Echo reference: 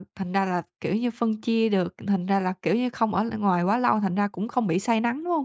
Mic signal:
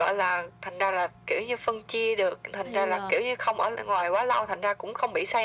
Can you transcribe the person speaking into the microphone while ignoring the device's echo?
Thì, ờ

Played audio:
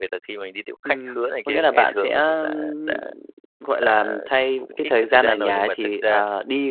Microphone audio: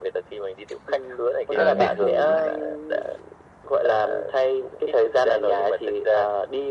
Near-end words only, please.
à, đền bù lại

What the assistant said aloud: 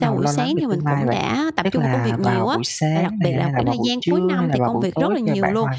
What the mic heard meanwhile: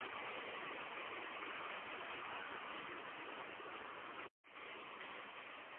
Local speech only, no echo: none

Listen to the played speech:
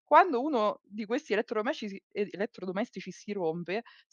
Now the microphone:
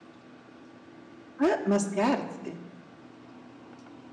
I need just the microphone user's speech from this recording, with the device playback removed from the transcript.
Eh, ma scherzi?

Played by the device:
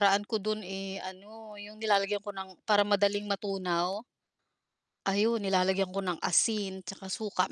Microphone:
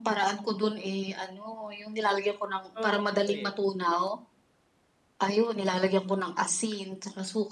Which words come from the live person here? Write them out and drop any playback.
Oo, Pinoy, eh.

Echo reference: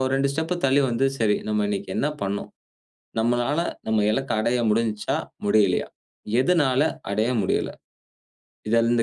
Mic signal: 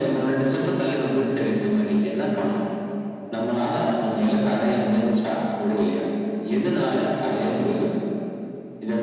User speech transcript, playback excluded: none

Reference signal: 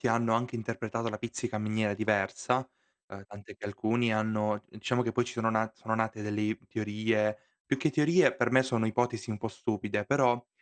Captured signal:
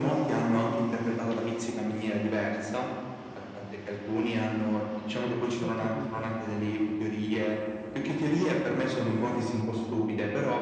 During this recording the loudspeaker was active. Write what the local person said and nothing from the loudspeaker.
Ho capito.

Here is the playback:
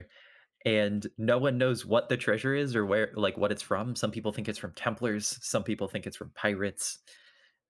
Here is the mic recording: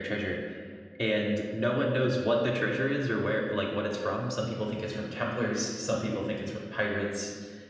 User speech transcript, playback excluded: none

